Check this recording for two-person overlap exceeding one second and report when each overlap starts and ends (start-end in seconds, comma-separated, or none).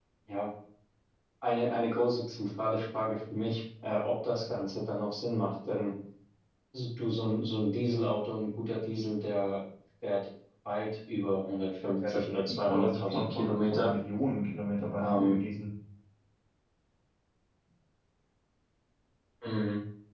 12.1-13.9